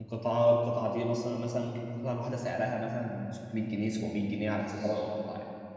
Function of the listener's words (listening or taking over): taking over